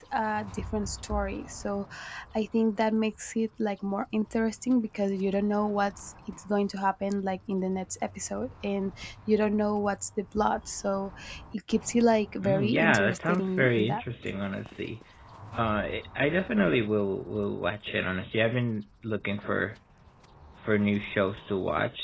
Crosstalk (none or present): present